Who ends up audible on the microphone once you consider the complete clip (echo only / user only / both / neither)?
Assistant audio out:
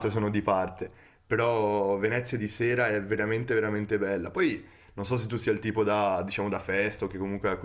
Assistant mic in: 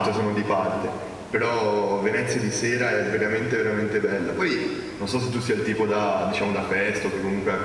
echo only